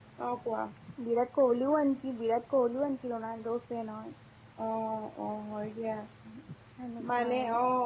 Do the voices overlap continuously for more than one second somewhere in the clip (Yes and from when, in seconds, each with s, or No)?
No